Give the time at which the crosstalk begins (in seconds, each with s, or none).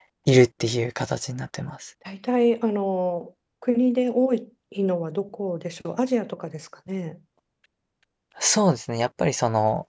none